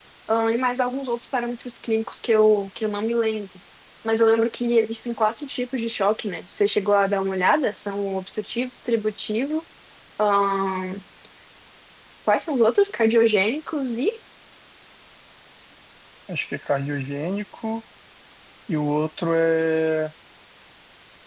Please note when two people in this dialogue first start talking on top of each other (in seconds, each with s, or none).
none